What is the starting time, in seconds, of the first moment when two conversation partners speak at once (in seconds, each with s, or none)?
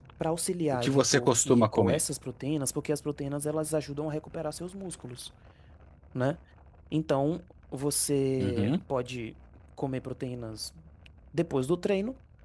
0.7 s